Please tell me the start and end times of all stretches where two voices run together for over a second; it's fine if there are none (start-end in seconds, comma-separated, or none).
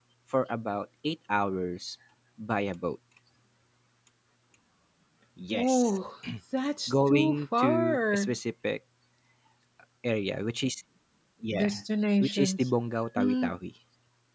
6.9-8.3